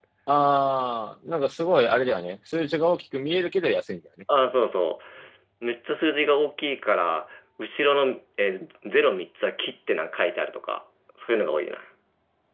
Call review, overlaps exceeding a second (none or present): none